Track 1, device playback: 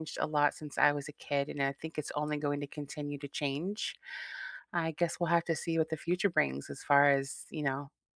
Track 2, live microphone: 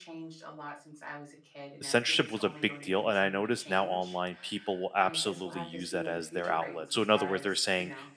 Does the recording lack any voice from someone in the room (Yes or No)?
No